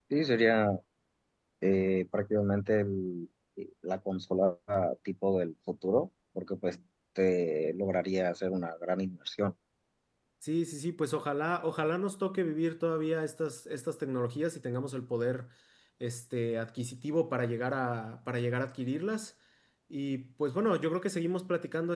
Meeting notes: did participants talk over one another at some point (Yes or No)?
No